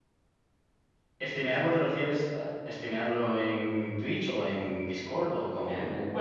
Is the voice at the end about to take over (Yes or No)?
Yes